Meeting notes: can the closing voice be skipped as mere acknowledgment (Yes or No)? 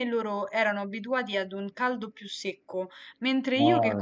Yes